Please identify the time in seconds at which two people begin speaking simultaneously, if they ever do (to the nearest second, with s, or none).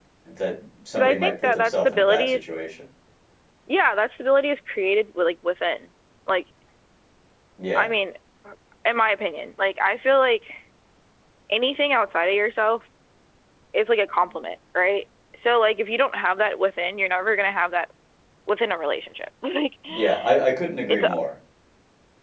1 s